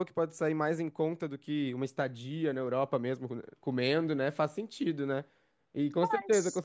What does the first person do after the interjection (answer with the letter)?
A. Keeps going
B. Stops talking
A